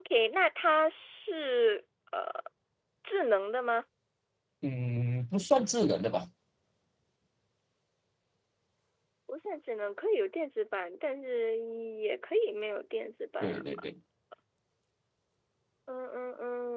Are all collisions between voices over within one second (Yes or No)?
Yes